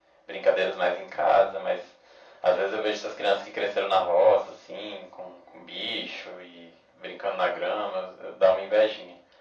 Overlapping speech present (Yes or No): No